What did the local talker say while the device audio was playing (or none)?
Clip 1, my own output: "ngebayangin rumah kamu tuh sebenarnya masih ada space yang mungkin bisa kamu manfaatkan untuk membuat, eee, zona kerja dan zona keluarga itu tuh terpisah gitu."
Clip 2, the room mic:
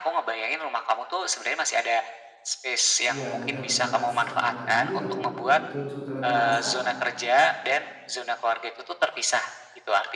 iya, nanti aku coba rasakan lagi apakah memang betul sebetulnya berasa